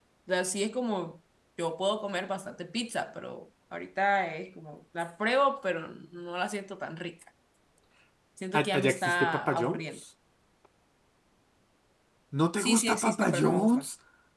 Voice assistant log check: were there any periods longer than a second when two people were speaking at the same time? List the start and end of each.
8.6-10.0, 12.6-13.8

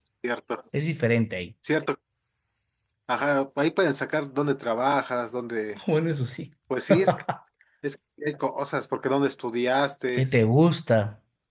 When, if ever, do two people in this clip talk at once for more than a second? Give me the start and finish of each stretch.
none

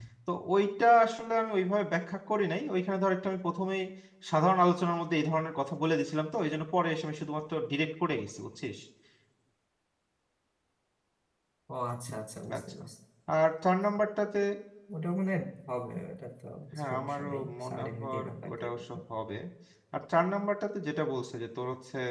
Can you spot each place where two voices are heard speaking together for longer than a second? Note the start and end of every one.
16.7-19.0

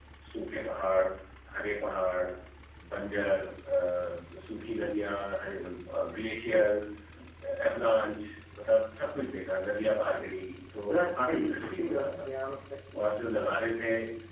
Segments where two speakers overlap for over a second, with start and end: 10.9-12.3

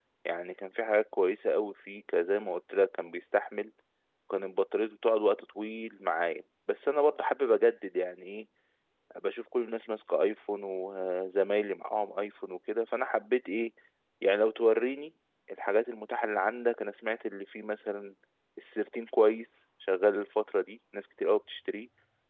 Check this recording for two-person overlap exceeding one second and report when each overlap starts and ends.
none

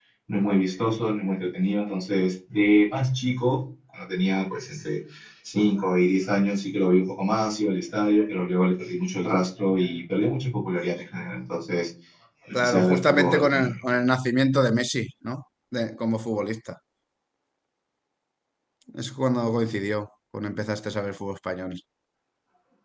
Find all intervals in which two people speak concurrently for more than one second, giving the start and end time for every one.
12.5-13.8

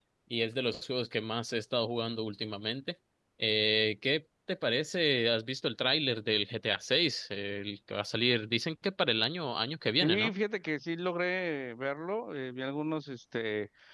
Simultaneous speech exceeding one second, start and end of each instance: none

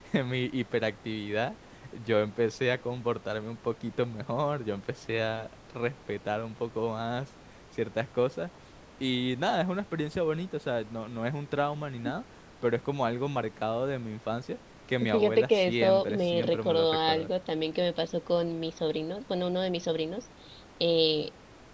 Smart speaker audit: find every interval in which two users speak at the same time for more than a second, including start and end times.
15.1-17.3

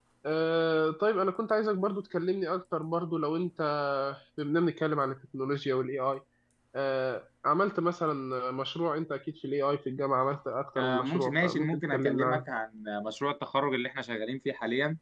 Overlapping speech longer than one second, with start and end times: 10.8-12.5

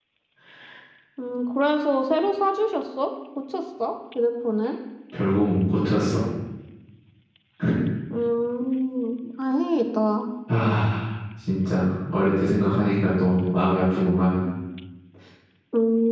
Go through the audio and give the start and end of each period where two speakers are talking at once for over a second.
none

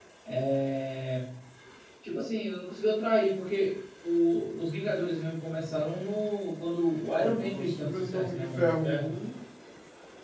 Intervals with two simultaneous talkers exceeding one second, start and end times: 7.1-9.2

